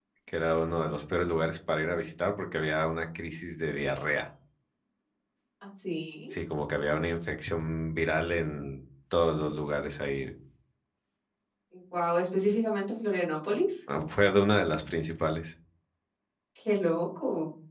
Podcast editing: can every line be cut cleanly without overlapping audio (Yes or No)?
Yes